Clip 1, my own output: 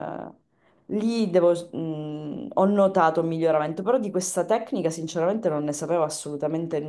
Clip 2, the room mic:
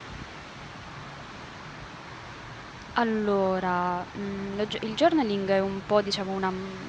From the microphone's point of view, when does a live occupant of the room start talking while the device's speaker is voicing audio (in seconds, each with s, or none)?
2.9 s